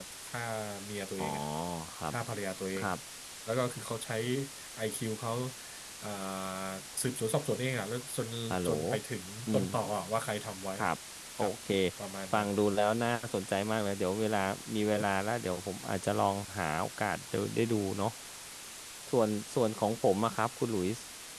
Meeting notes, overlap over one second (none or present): none